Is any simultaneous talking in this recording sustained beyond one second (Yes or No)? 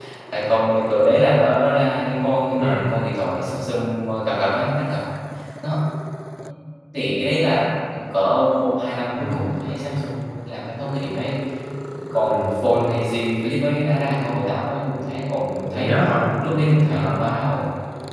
No